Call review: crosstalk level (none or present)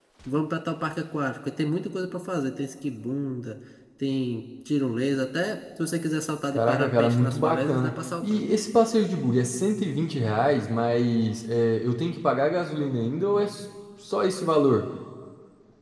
present